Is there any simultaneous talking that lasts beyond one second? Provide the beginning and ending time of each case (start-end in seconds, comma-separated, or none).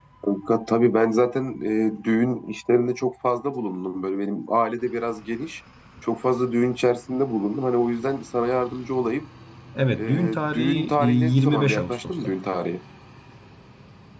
10.0-12.4